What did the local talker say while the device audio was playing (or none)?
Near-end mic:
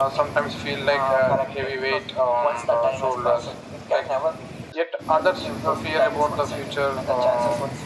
none